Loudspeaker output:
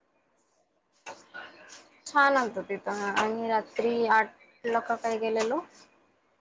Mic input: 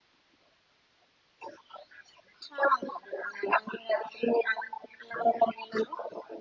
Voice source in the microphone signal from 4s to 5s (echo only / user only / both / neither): echo only